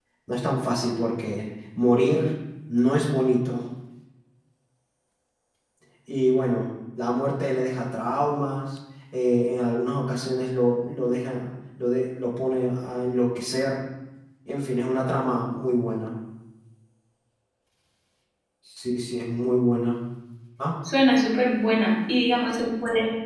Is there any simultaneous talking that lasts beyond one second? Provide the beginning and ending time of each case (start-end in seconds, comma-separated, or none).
none